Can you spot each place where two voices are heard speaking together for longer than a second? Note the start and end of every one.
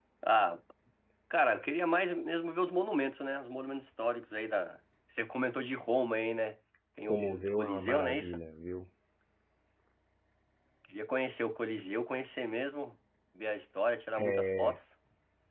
7.0-8.4

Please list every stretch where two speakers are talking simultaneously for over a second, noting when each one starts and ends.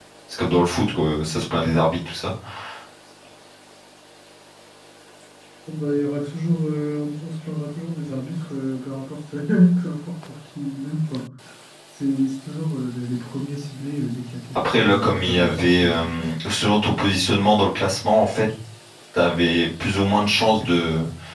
14.6-16.3

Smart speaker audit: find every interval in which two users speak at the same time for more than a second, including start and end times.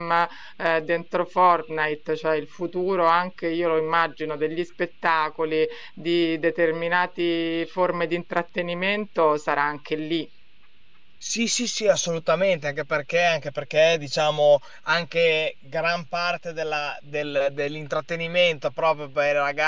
none

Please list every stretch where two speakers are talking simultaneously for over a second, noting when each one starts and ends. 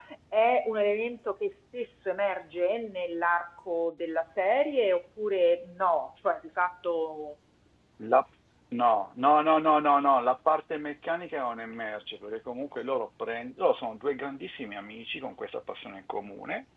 none

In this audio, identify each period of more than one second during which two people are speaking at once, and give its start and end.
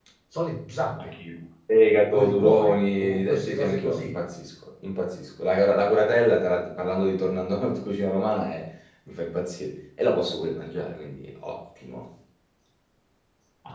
2.1-4.2

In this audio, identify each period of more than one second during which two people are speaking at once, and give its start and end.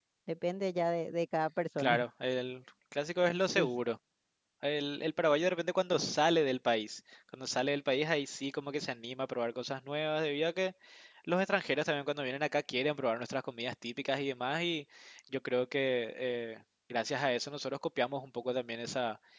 none

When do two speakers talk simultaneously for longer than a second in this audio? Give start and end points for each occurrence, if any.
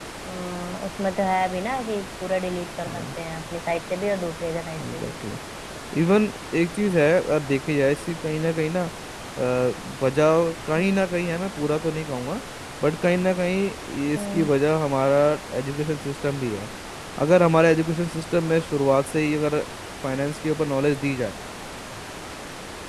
none

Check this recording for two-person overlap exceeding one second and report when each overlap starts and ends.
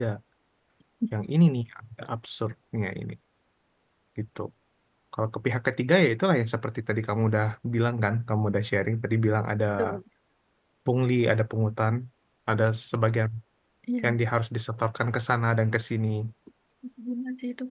none

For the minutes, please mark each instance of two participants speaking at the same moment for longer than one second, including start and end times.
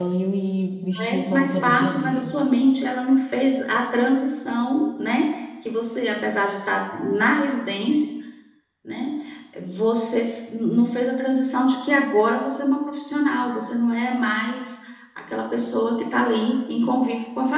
1.0-2.3

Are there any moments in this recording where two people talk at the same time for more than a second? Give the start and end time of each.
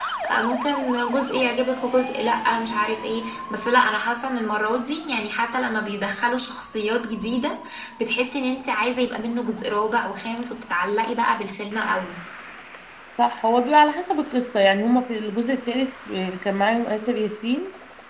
none

